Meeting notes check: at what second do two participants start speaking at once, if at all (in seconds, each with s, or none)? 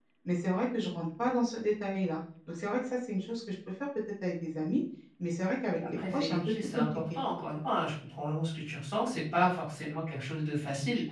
5.7 s